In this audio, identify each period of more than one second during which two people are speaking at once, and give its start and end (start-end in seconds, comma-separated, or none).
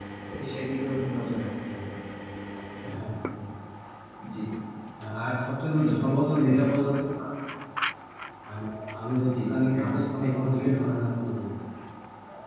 9.4-10.7